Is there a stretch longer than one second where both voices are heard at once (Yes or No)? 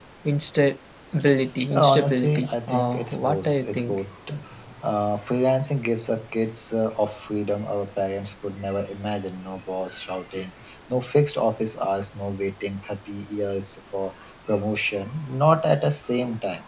Yes